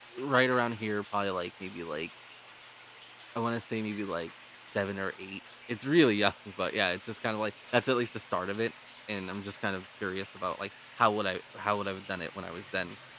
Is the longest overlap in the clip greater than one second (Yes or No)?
No